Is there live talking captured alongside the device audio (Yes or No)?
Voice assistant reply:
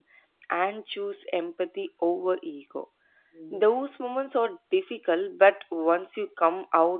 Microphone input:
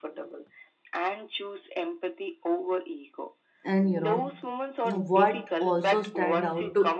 Yes